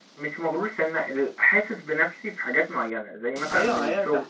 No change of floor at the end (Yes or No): No